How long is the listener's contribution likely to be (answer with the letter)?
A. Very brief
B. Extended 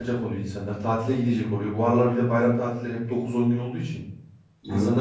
A